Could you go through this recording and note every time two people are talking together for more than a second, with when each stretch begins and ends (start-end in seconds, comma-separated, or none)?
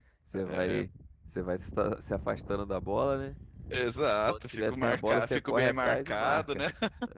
4.3-6.6